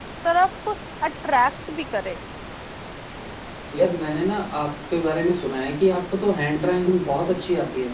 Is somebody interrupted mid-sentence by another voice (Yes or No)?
No